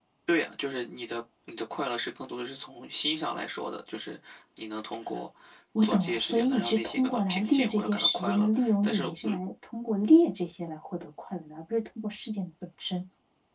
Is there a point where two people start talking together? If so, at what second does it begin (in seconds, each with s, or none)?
5.8 s